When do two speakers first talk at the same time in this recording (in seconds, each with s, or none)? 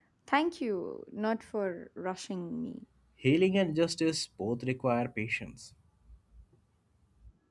none